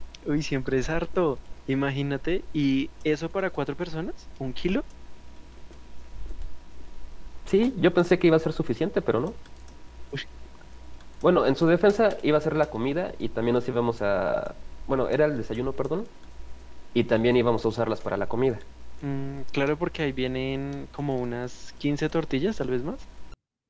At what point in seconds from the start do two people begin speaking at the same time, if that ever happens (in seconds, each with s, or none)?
none